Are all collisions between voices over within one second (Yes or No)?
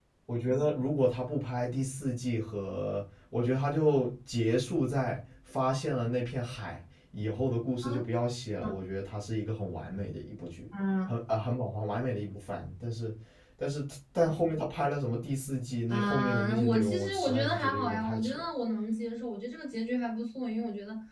No